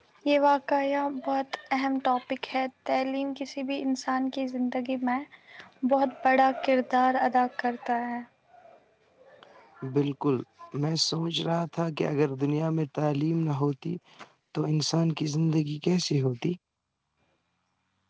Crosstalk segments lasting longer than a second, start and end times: none

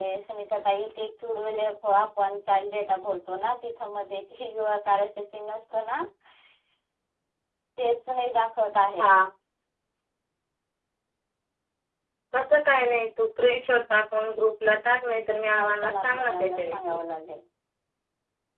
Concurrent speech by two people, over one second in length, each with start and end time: 15.5-17.0

